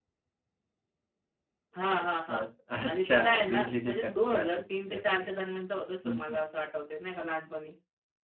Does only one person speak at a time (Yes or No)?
No